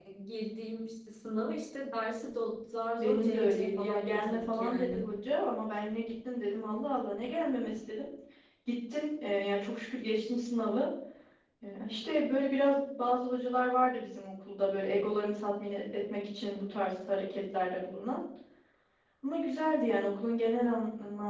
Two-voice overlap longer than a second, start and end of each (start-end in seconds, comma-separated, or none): 3.0-5.0